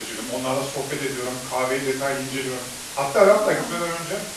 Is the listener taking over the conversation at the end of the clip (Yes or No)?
No